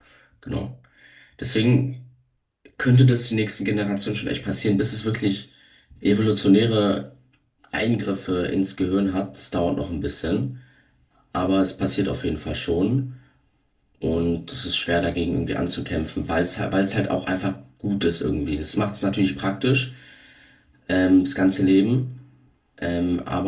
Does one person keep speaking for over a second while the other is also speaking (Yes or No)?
No